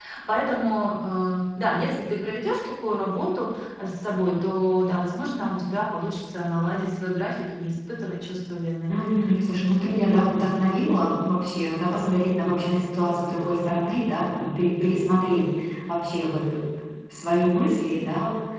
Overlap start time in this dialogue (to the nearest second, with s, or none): none